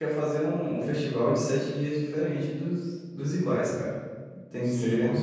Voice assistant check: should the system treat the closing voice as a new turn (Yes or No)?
Yes